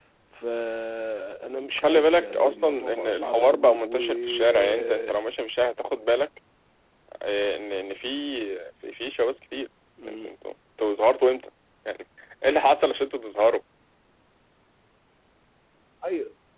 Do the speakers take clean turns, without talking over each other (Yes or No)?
No